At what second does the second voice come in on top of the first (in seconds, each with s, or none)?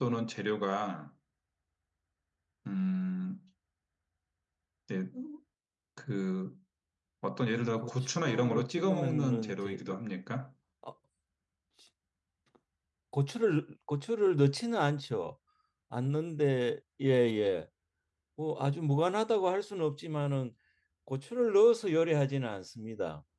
7.8 s